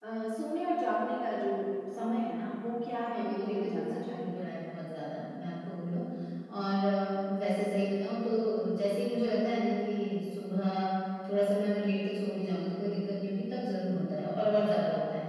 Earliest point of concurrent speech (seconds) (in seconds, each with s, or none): 3.1 s